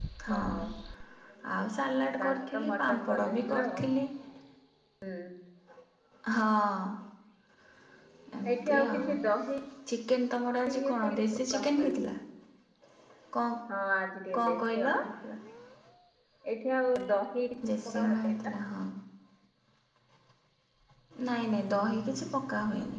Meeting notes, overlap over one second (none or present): present